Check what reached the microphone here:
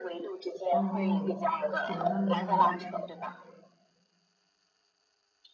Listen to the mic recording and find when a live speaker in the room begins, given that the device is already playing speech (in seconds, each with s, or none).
0.7 s